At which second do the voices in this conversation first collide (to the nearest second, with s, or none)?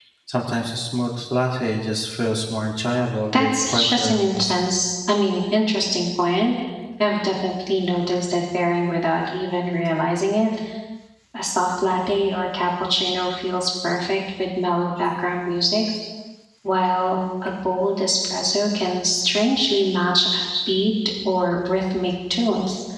3 s